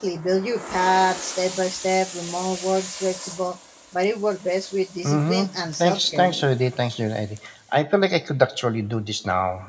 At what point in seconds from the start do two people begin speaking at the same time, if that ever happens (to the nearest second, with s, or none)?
5 s